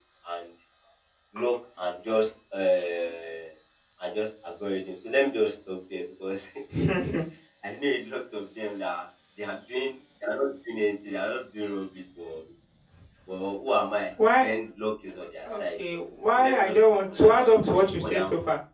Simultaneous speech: Yes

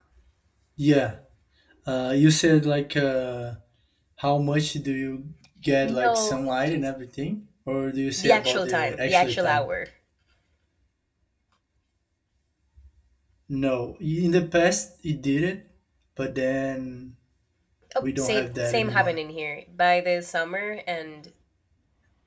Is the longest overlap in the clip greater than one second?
Yes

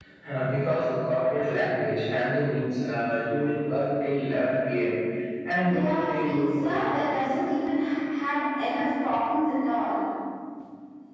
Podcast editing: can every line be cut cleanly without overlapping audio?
No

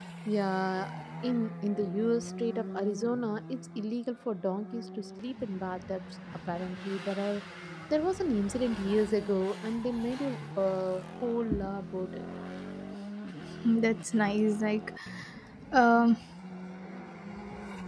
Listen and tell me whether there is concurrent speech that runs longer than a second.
No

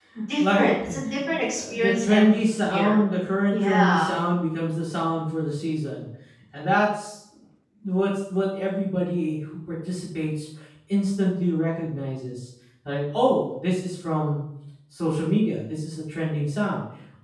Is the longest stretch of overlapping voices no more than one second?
No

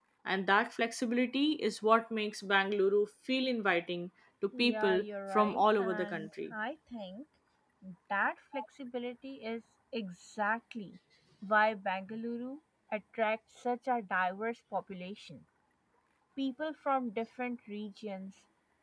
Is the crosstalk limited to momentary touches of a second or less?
No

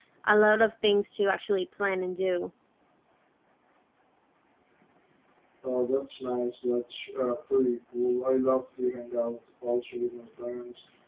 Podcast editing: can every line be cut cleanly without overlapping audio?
Yes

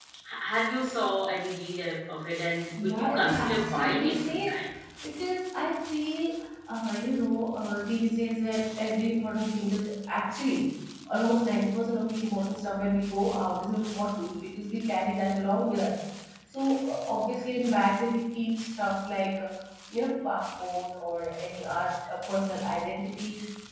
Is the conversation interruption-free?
No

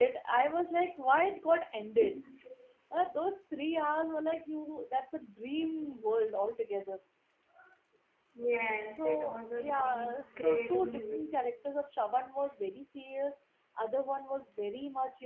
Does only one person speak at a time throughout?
No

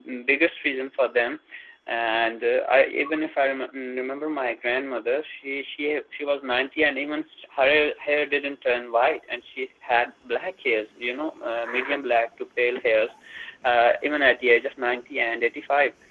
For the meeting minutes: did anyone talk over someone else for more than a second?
No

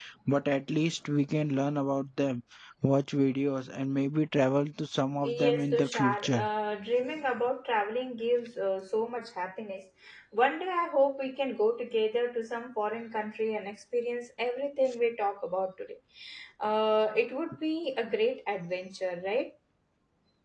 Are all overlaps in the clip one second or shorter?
No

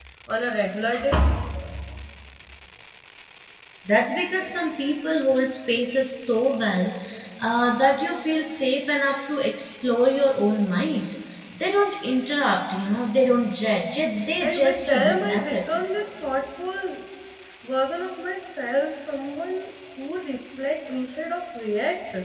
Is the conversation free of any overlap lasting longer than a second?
No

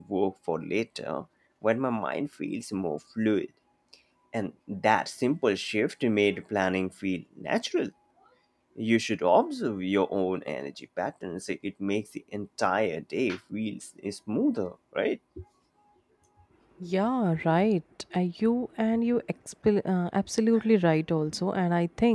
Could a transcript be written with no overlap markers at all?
Yes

